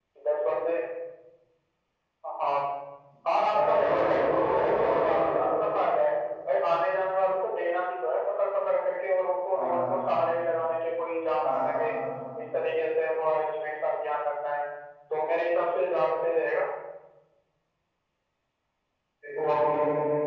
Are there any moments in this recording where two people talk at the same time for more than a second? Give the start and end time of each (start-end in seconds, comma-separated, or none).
3.5-5.2